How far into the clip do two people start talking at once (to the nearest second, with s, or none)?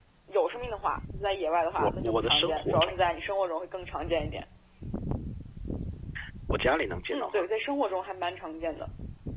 2 s